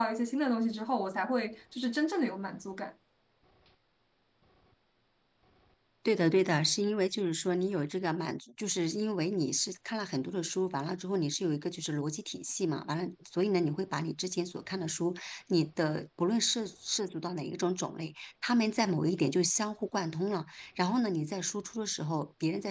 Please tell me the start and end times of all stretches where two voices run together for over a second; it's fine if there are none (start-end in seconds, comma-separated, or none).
none